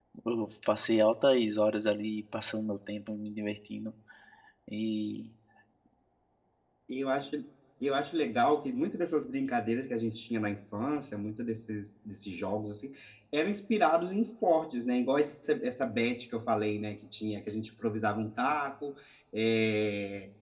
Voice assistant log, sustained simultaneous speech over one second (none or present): none